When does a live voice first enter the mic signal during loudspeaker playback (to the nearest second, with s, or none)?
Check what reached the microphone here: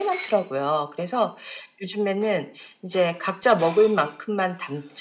none